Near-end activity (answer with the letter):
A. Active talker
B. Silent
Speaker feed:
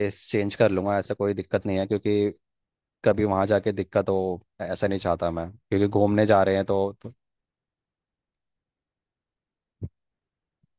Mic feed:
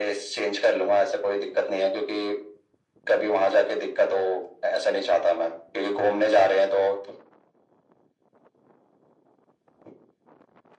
B